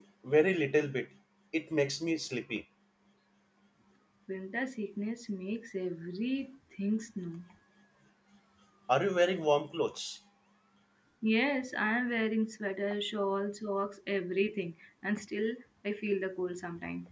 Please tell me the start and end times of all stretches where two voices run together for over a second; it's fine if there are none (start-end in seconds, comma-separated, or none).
none